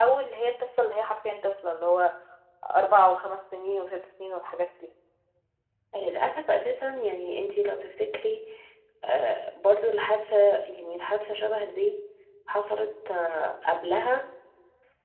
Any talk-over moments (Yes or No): No